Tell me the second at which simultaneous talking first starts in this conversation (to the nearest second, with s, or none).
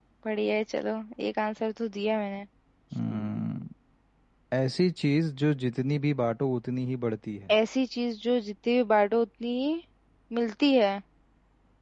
none